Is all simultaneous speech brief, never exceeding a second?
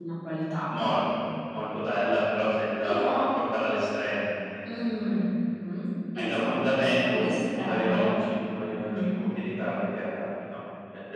No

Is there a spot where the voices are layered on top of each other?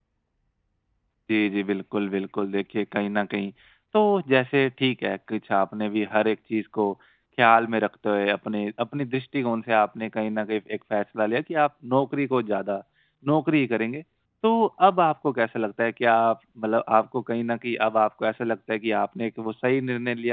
No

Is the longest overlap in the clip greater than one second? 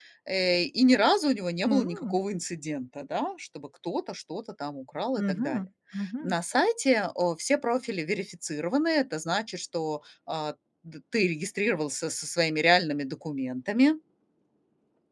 No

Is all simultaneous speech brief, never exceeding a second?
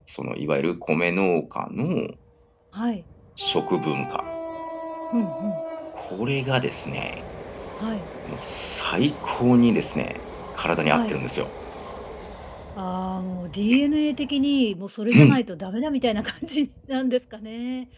Yes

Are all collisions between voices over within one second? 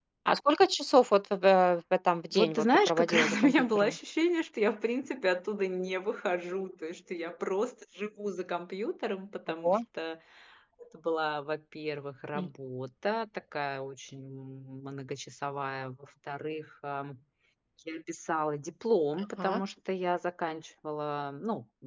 No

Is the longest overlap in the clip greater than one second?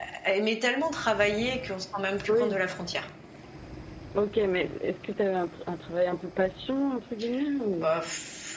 No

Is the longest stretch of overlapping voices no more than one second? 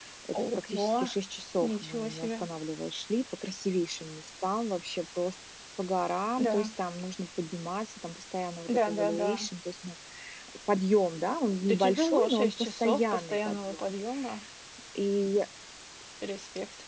No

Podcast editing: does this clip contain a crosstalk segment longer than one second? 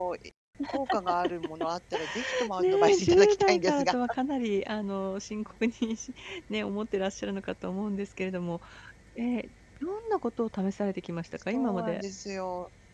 Yes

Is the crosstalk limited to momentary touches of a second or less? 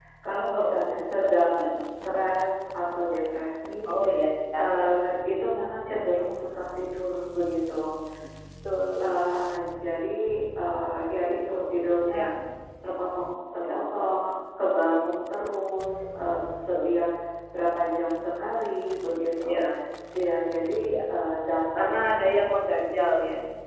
No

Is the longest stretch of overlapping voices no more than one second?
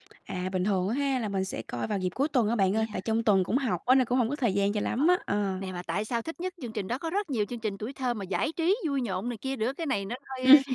Yes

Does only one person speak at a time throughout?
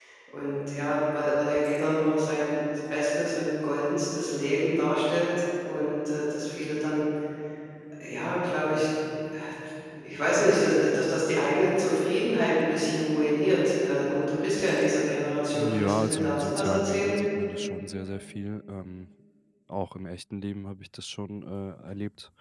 No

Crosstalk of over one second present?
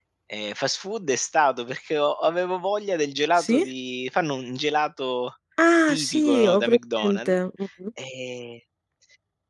Yes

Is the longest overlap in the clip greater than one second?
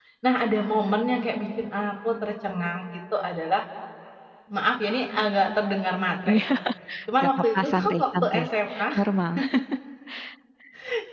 Yes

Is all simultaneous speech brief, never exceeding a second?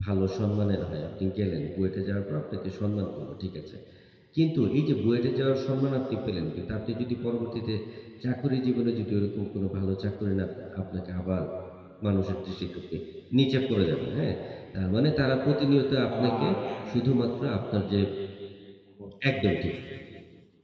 Yes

